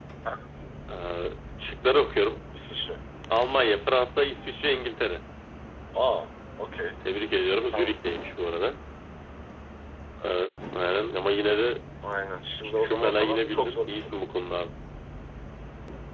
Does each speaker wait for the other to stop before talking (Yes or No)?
No